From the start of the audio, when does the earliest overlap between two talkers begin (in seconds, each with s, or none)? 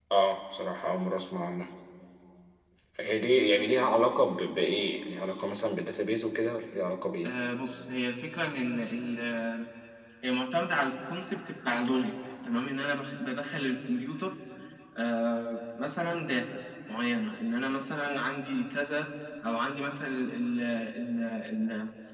none